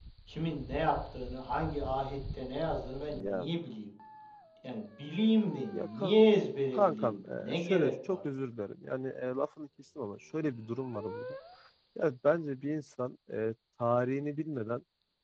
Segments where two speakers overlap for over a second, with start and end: 6.7-8.2

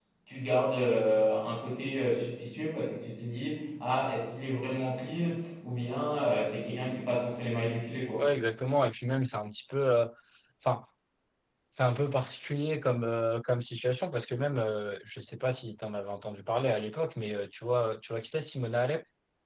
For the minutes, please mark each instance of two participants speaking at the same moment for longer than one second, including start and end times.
none

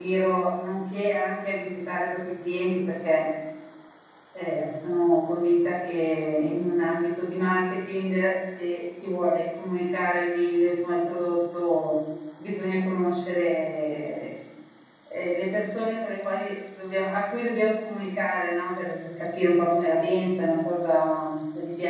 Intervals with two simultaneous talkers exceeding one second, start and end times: none

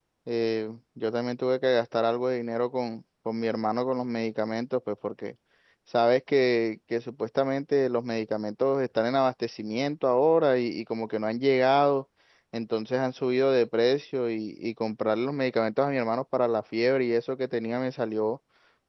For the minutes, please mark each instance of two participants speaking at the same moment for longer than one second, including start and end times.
none

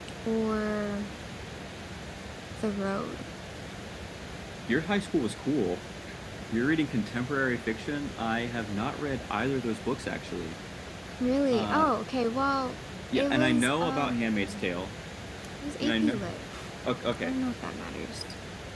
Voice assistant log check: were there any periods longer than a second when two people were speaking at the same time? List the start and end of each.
13.2-14.7

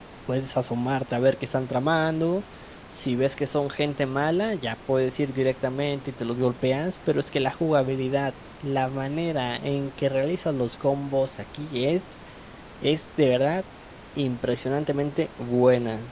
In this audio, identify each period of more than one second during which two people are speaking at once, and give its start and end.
none

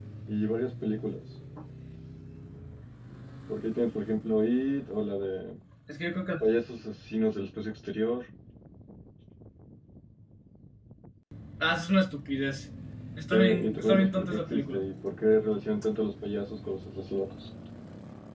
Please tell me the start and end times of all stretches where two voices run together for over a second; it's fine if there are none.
13.3-14.8

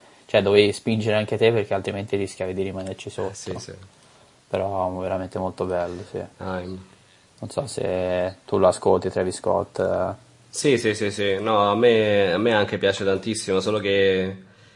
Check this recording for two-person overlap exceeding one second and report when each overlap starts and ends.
none

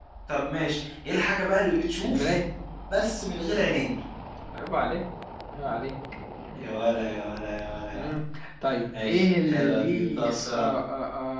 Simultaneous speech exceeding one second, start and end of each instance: 9.0-10.7

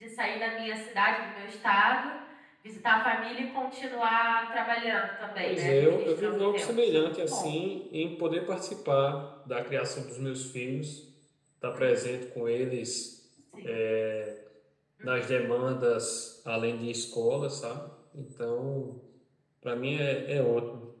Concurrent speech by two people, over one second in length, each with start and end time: 5.4-7.5

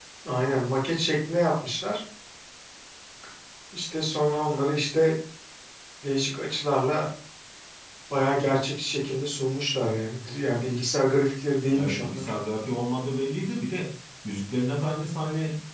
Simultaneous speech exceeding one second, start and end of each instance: none

